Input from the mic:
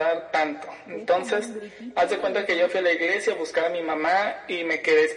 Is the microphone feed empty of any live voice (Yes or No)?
No